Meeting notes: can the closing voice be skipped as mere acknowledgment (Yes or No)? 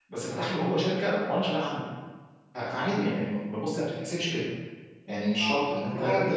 Yes